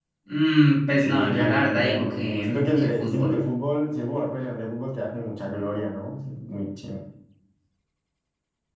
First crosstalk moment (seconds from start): 1.0 s

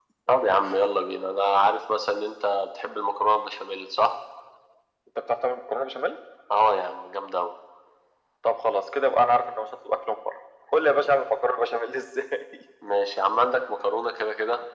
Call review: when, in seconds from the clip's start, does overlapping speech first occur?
none

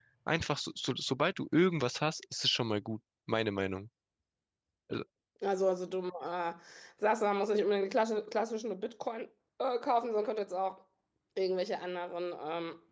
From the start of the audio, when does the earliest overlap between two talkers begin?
none

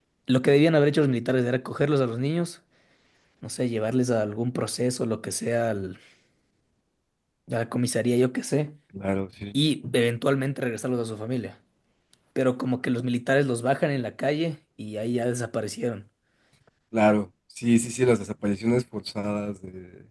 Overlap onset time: none

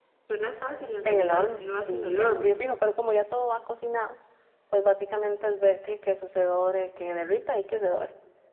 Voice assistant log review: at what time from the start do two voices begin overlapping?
1.1 s

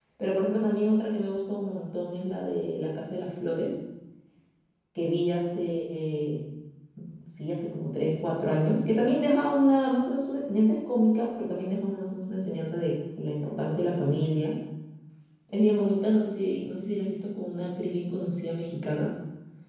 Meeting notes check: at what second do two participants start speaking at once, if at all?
none

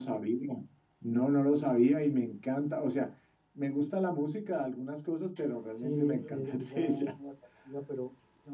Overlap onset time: 5.8 s

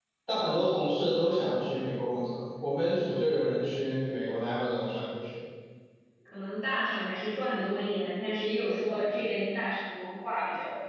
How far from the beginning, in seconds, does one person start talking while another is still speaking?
none

